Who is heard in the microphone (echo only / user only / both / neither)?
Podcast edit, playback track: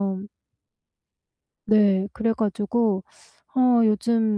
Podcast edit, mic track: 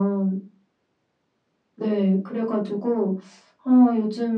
echo only